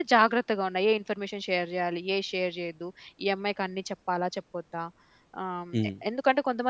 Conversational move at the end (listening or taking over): listening